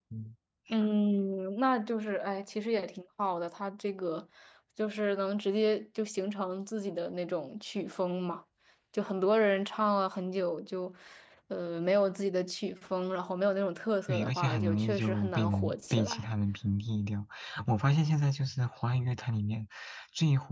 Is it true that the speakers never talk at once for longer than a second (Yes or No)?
No